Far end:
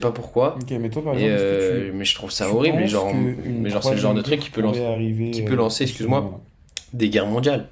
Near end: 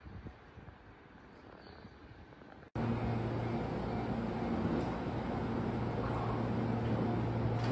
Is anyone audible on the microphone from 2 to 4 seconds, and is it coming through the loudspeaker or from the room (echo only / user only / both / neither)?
neither